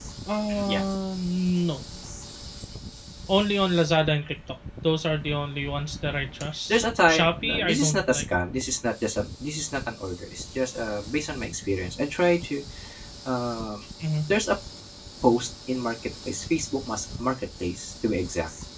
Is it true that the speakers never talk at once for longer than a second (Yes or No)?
No